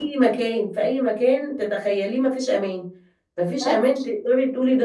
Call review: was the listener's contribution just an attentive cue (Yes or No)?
Yes